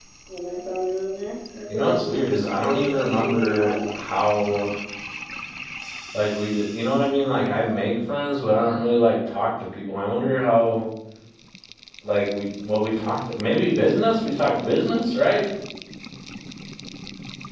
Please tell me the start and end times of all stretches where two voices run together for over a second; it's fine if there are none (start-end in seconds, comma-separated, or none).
1.7-3.7